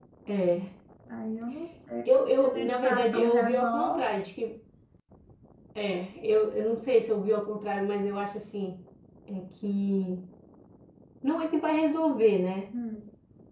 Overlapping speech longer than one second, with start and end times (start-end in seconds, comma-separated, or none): 2.0-4.0